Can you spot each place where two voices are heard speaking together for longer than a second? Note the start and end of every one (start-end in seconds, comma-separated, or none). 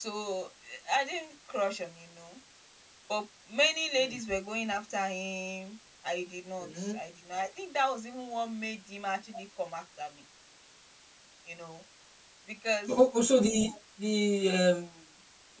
none